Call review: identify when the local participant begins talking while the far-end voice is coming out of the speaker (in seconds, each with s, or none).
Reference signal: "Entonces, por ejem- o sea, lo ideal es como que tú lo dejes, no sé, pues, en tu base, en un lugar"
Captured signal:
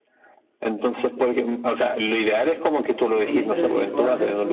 3.2 s